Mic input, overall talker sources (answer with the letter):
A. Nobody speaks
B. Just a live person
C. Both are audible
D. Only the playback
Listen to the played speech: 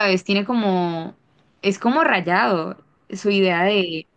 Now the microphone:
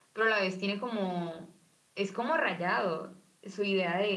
D